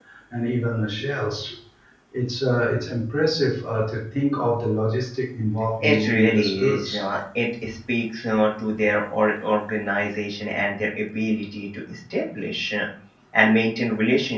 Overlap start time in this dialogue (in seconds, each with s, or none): 5.8 s